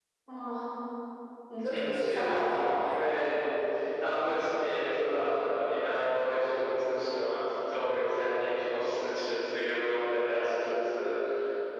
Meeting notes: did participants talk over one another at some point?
Yes, from 1.6 s

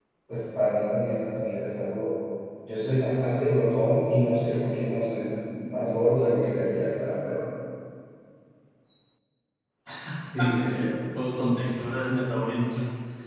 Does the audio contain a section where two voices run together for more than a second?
No

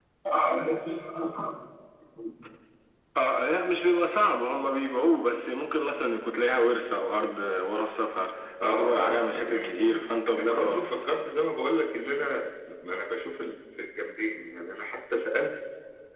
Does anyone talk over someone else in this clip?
Yes, from 8.6 s

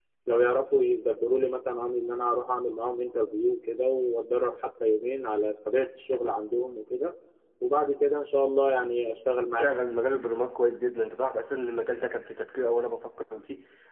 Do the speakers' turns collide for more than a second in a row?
No

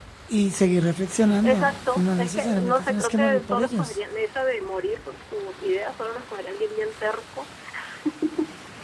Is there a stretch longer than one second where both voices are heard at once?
Yes, from 1.2 s

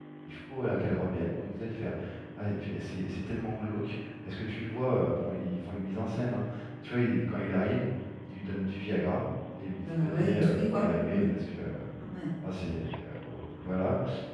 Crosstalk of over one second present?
Yes, from 9.8 s

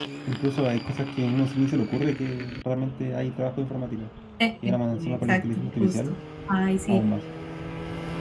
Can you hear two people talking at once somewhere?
Yes, from 4.6 s

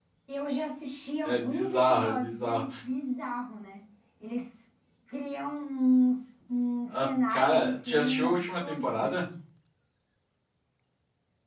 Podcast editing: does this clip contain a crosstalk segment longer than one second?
Yes, from 1.2 s

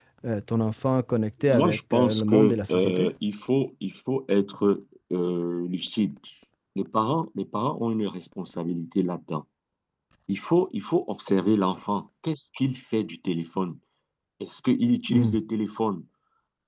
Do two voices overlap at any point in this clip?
Yes, from 1.4 s

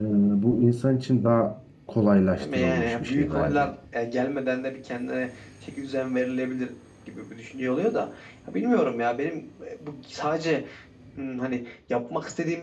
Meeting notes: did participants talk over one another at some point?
Yes, from 2.4 s

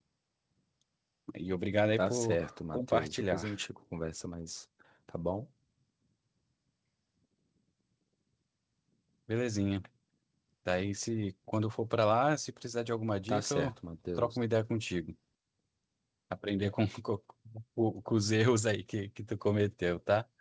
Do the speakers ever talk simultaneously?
Yes, from 2.0 s

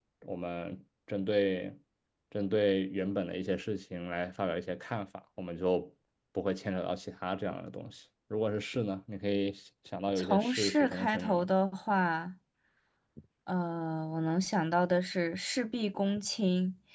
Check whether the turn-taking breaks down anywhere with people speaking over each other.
Yes, from 10.2 s

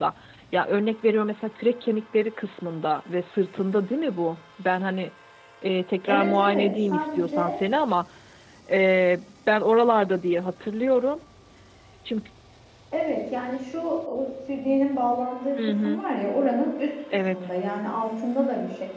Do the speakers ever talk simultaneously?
Yes, from 6.1 s

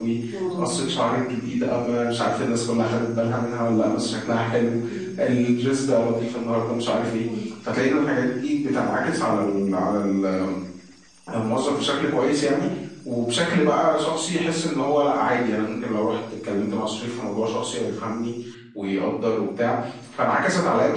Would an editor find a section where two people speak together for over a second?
No

